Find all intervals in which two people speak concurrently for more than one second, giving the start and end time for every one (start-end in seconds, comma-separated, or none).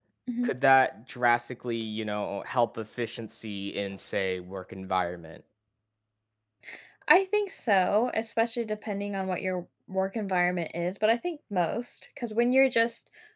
none